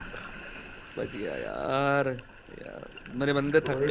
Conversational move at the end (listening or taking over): taking over